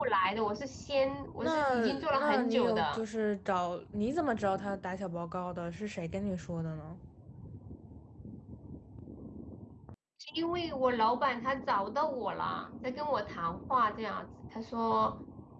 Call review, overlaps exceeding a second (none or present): present